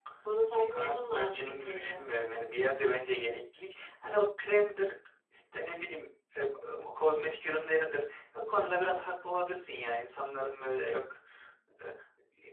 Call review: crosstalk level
present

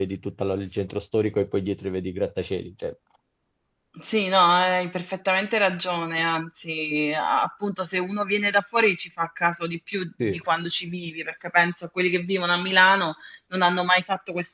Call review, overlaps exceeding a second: none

